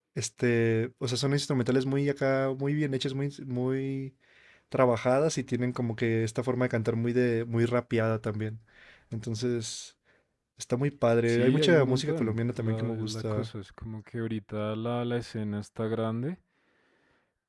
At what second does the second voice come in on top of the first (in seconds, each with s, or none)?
11.3 s